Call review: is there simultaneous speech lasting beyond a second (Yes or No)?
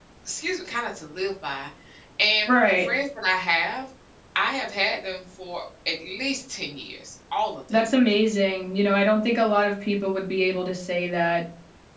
No